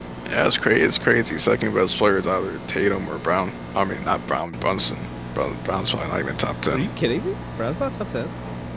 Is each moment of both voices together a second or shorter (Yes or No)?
Yes